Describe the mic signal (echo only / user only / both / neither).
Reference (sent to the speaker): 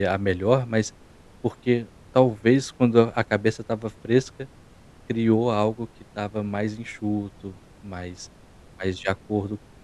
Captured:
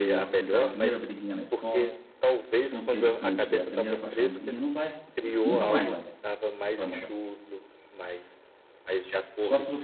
both